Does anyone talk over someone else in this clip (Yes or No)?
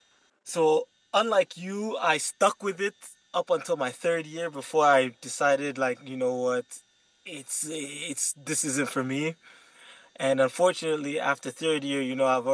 No